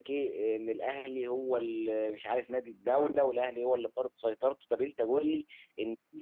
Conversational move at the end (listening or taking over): listening